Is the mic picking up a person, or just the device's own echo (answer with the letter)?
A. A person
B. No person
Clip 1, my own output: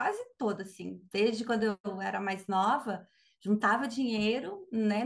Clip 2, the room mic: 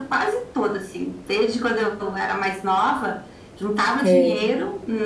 A